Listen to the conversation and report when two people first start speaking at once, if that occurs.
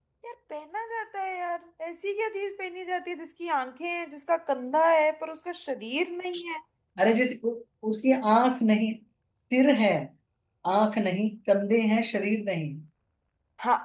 none

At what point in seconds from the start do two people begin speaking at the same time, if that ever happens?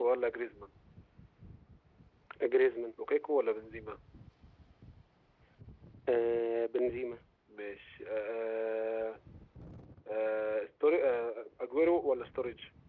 none

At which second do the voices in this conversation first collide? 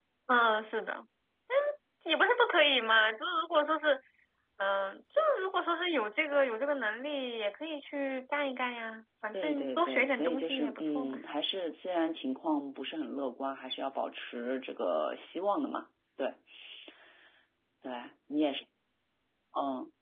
9.3 s

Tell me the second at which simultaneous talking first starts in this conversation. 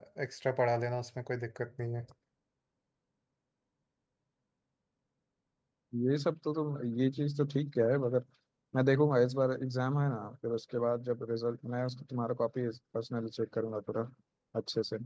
none

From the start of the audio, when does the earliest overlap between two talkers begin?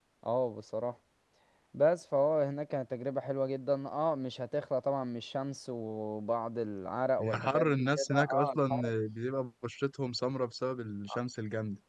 7.2 s

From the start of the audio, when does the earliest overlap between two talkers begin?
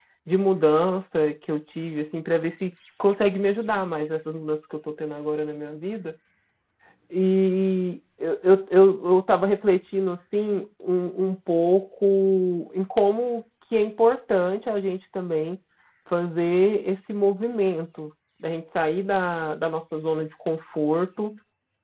none

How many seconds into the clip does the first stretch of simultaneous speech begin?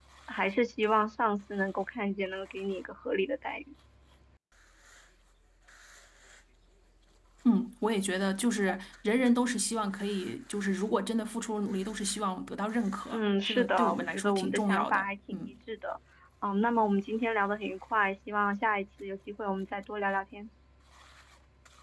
13.1 s

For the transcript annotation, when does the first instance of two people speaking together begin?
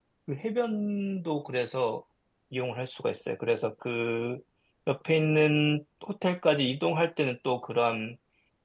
none

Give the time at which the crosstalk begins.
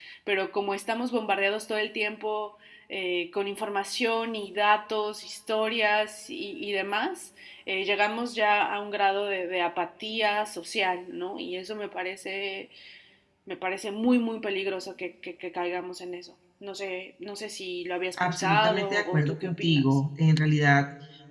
18.2 s

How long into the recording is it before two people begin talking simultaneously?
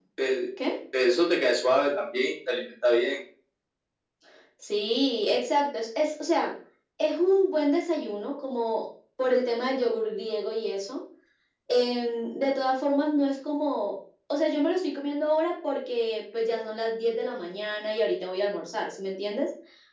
none

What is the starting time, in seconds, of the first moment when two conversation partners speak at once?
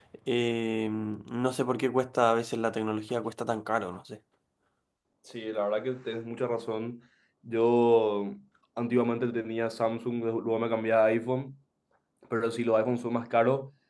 none

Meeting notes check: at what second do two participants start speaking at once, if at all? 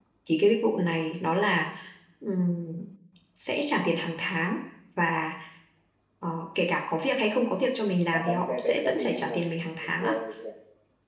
8.1 s

